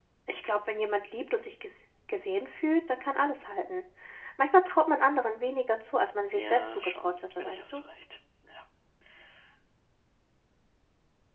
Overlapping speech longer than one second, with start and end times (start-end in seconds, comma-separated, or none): 6.3-7.8